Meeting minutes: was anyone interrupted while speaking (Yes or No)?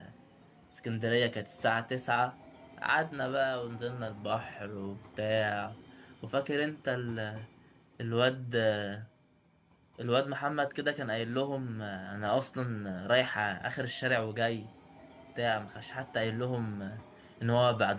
No